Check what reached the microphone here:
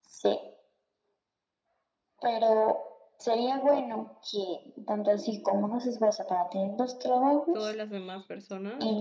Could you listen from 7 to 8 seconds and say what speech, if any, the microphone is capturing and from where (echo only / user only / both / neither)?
both